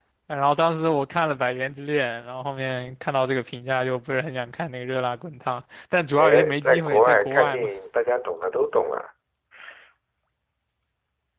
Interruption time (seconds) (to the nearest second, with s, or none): 6 s